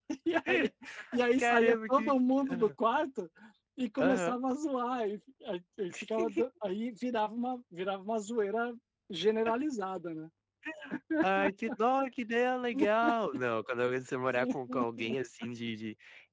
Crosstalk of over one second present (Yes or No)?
Yes